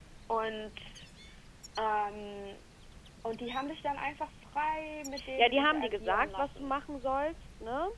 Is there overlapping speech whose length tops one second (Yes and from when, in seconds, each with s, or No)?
Yes, from 5.2 s